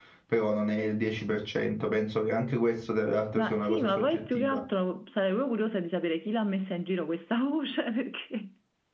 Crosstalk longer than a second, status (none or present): present